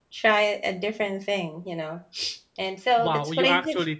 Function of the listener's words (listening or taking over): taking over